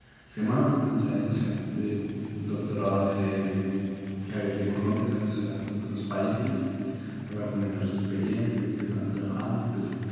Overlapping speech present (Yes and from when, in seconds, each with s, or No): No